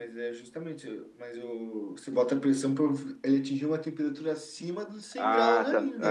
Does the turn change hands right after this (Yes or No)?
Yes